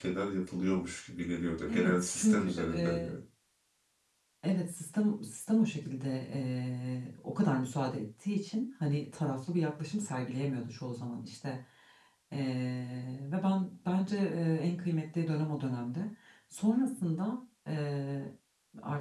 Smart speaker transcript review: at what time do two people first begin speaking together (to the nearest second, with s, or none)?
2 s